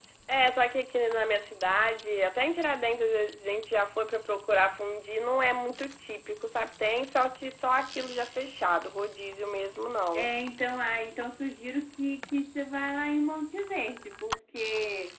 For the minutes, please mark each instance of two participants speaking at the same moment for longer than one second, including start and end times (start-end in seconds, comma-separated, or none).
none